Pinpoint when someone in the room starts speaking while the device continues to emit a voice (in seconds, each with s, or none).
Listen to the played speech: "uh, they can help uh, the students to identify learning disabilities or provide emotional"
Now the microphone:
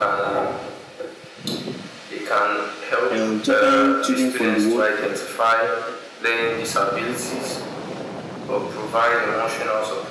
3.1 s